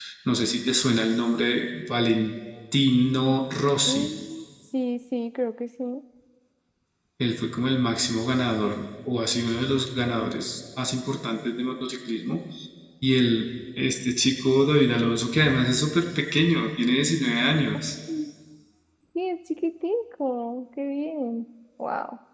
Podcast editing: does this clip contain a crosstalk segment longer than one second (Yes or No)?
No